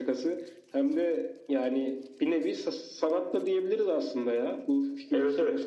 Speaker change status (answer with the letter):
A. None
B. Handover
B